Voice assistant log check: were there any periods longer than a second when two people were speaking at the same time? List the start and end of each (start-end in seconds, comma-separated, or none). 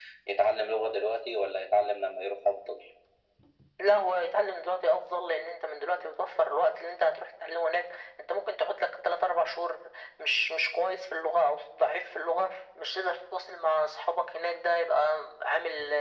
none